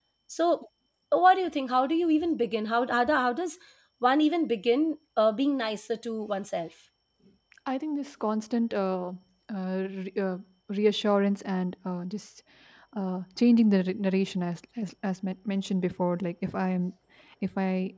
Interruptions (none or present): none